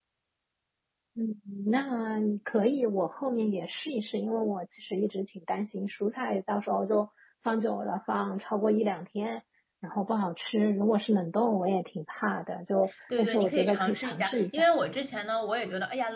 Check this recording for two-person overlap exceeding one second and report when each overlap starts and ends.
13.2-14.7

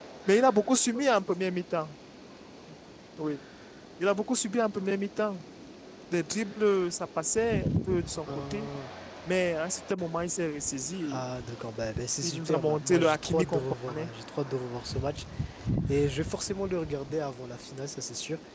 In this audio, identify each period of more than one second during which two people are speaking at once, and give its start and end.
12.2-14.1

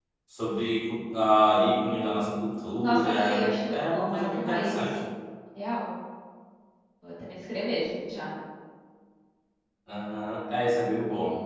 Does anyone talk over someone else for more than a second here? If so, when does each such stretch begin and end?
2.8-5.0

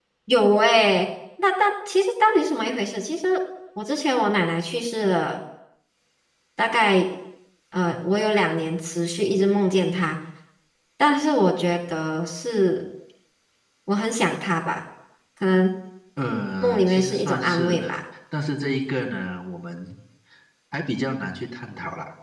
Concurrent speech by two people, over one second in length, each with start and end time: 16.6-18.0

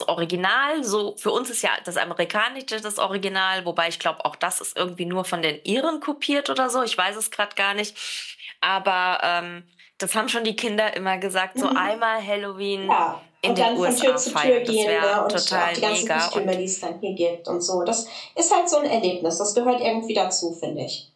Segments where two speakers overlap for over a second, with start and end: 13.4-16.6

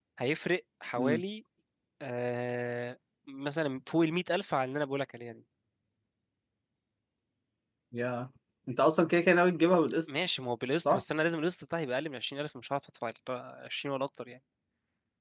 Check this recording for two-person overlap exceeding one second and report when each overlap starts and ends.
none

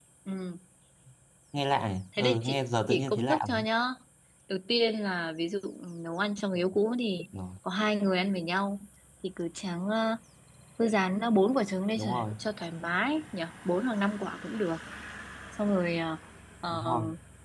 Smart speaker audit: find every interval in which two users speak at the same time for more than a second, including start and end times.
2.2-3.6

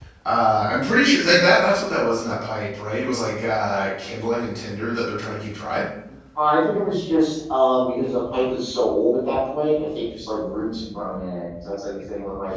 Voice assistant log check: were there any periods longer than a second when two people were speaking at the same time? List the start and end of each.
none

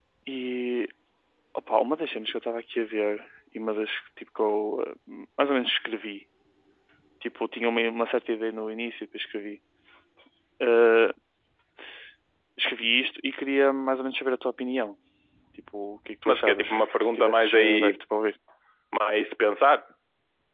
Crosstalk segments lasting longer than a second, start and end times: 16.2-18.0

